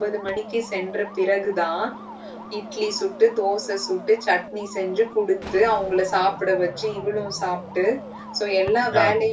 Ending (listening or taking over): listening